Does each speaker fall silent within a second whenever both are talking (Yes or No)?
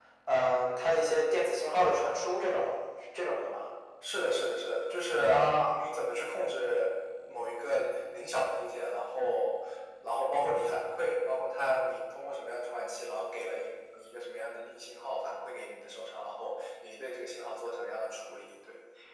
Yes